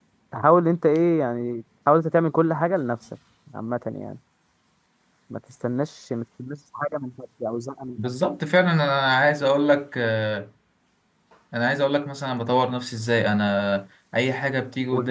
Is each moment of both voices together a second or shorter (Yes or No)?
Yes